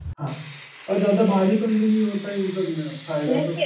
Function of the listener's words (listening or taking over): taking over